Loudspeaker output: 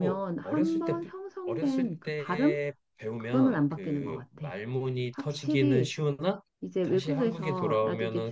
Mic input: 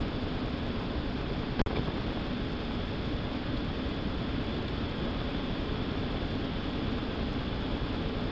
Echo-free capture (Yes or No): Yes